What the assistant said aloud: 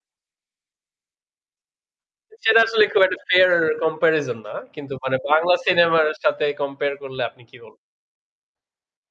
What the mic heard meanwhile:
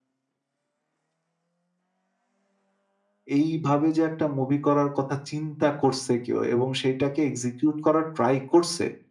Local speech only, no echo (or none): এইভাবে যে একটা মুভি করার কথা চিন্তা করছে কেউ এবং সেটাকে এক্সিকিউট করার ট্রাই করছে